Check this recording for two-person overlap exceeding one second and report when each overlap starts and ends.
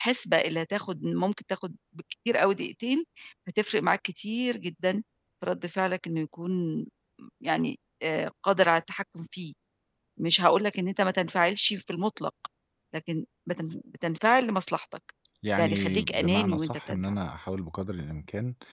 15.6-17.2

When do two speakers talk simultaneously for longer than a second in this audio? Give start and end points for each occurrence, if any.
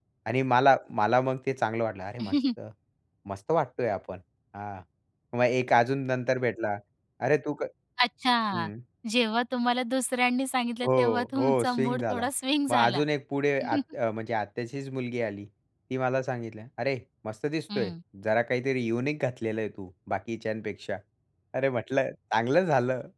10.9-12.3

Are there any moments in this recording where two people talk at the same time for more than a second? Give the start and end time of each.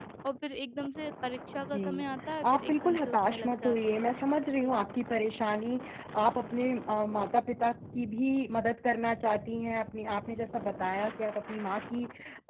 2.5-4.1

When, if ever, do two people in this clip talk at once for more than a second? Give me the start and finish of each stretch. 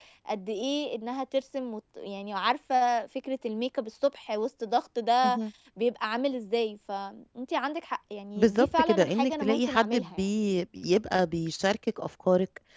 8.4-10.2

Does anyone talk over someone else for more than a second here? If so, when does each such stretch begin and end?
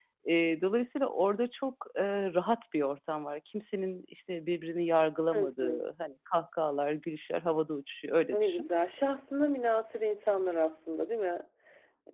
none

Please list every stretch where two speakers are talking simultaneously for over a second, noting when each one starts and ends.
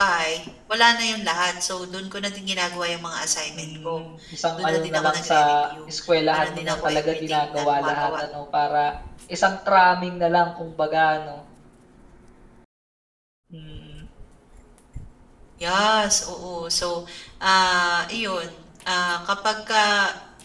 4.6-5.9, 6.3-8.2

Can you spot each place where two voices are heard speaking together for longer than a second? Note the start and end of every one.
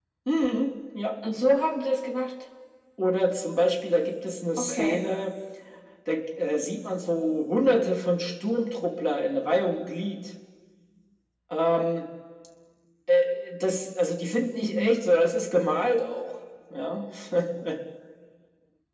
none

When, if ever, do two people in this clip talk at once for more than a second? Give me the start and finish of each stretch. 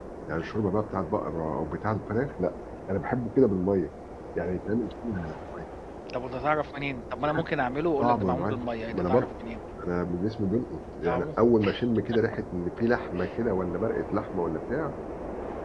8.0-9.3

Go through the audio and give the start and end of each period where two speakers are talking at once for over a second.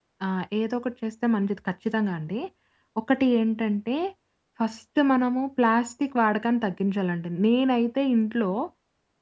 none

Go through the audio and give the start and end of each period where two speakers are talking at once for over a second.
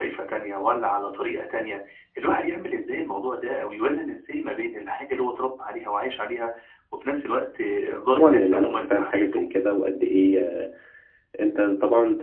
8.2-9.4

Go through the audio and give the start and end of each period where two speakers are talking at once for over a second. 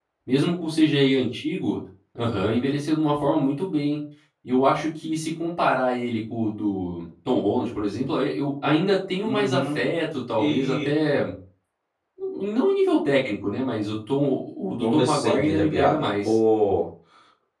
14.8-16.4

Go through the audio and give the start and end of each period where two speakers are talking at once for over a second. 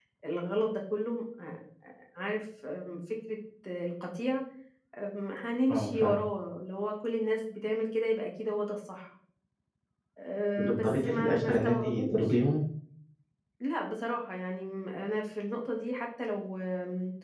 10.6-12.2

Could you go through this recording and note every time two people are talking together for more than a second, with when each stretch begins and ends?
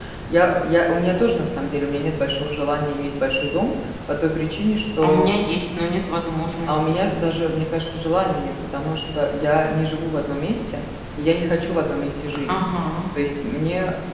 none

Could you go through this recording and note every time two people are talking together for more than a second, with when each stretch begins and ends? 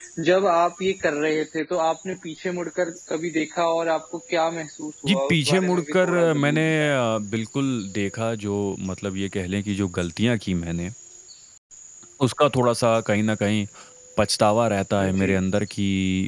5.0-6.9

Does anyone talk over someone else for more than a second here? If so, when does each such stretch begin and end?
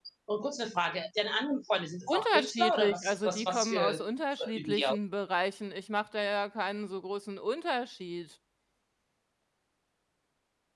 2.1-4.0

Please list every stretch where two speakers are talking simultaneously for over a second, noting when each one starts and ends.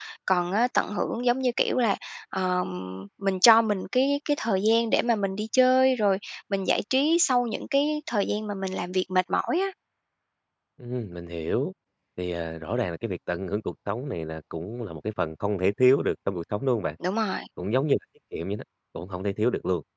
none

